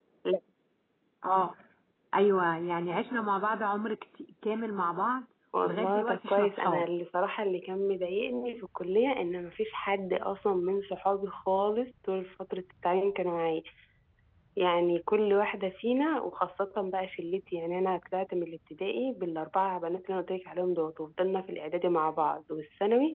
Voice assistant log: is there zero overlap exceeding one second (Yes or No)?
No